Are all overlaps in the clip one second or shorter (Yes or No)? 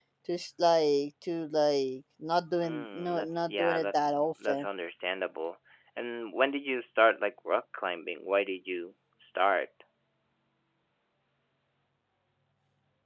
No